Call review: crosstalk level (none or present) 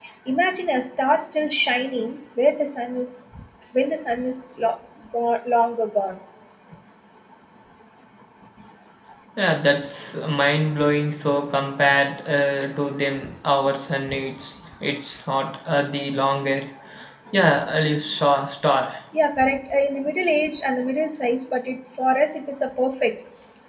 none